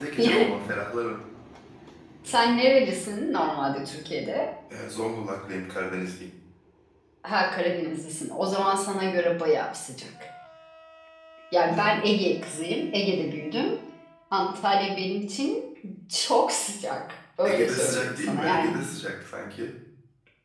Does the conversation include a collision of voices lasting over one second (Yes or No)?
Yes